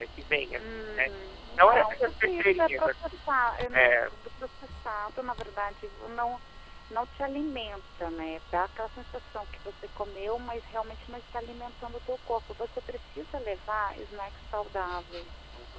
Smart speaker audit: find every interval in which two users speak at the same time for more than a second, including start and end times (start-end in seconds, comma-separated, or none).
1.6-2.9